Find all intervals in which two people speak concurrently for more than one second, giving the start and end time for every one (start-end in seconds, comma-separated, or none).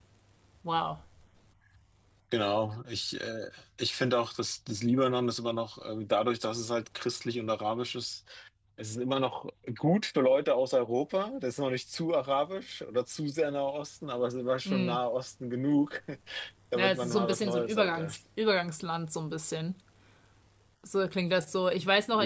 16.8-18.1